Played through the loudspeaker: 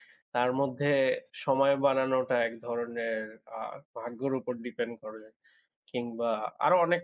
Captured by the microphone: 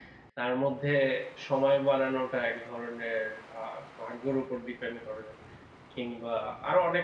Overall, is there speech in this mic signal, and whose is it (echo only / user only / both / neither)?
echo only